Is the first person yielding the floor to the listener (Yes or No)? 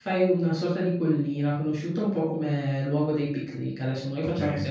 No